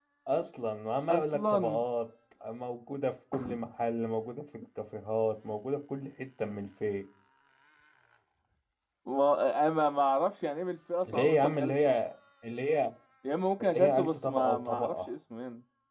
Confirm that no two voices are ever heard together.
No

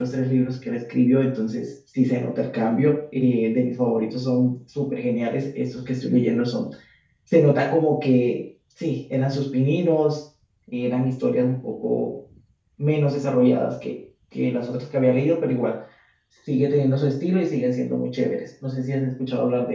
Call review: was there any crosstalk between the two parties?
No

